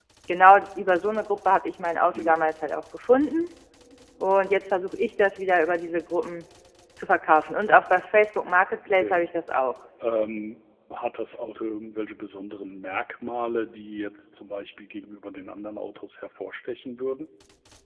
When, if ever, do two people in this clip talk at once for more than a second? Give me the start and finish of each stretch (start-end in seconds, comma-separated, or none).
none